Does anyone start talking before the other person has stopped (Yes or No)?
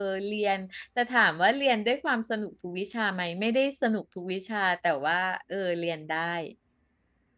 No